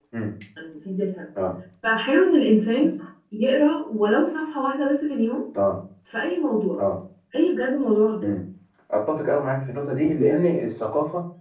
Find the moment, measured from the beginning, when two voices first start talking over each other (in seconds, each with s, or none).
none